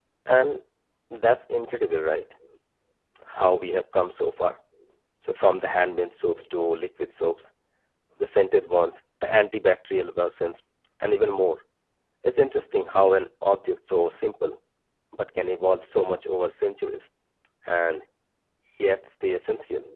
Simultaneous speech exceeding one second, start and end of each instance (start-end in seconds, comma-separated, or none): none